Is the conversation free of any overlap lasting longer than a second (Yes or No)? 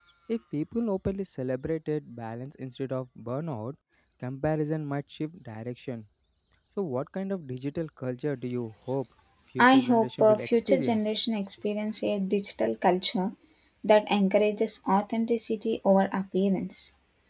No